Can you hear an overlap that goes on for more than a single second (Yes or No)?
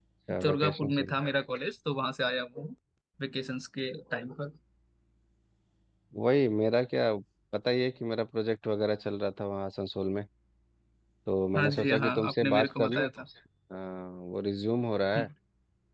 Yes